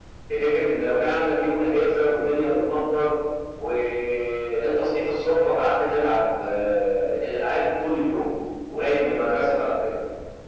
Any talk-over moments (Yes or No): No